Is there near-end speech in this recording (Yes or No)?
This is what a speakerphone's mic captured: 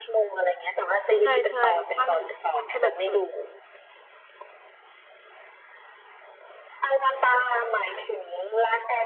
Yes